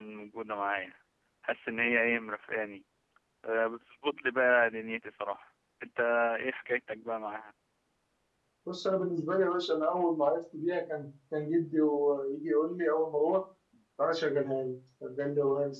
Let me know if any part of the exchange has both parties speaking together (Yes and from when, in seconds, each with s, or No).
No